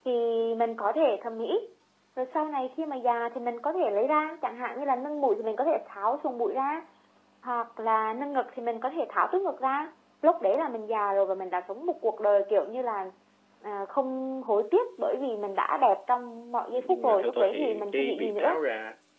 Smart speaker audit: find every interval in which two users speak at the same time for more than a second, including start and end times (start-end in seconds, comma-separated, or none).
16.7-18.6